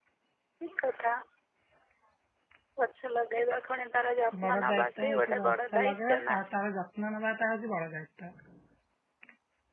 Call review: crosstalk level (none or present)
present